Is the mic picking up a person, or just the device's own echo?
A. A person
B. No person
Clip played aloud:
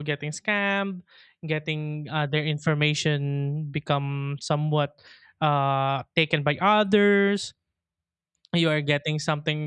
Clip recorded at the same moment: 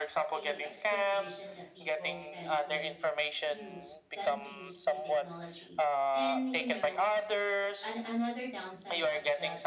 A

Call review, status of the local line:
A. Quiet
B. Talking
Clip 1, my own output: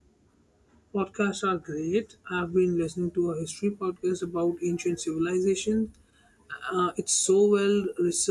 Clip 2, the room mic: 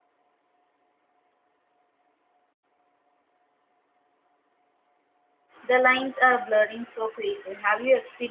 B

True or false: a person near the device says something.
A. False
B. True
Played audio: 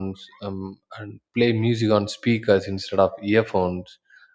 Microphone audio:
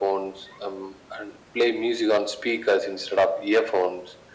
A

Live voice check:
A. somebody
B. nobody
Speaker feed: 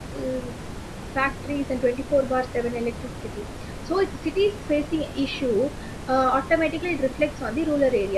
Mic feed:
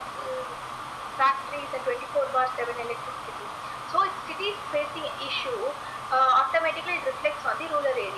B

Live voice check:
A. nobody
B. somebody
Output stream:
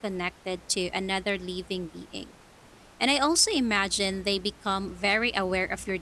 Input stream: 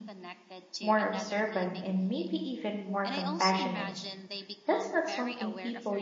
B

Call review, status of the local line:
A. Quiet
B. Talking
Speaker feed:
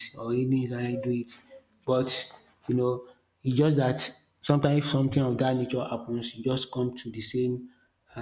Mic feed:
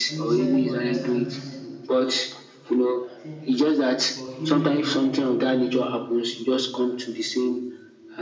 B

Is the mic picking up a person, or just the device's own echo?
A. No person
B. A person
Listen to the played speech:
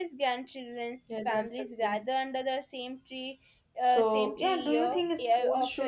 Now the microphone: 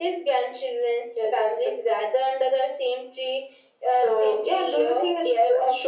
A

